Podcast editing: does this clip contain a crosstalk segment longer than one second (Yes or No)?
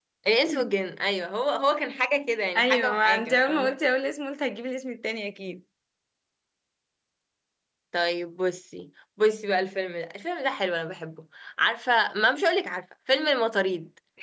Yes